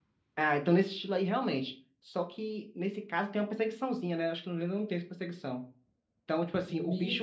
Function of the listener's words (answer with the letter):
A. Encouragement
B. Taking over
B